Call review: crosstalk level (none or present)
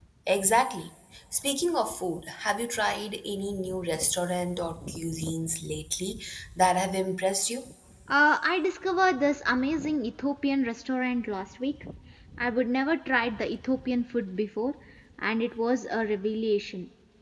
none